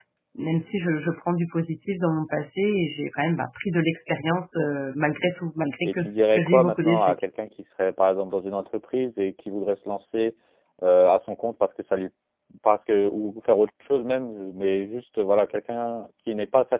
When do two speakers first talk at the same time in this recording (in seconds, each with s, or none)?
5.8 s